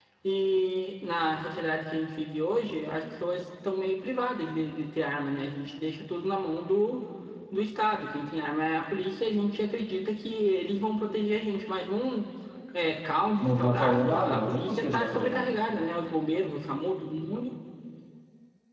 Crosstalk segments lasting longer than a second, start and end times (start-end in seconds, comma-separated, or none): 13.4-15.6